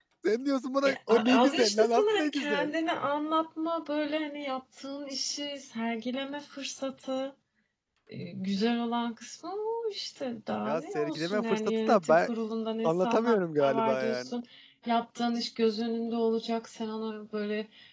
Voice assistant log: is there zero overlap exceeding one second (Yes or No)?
No